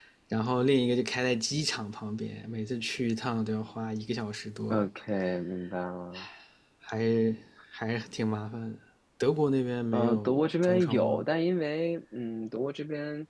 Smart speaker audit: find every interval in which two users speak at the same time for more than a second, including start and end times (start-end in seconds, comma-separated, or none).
9.9-11.3